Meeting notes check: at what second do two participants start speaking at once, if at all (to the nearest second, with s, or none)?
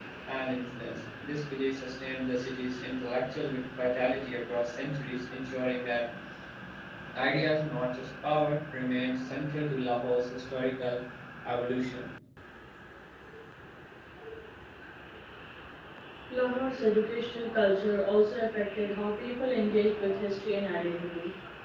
none